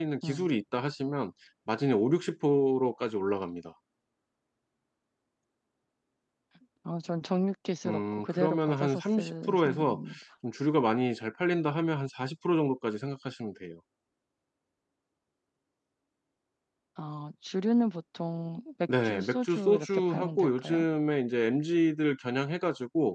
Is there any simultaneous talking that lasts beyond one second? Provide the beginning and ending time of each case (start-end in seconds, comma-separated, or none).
7.8-10.0, 19.0-20.8